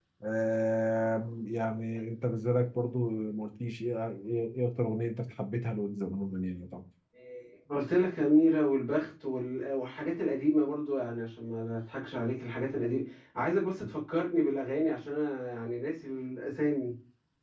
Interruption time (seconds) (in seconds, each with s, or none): none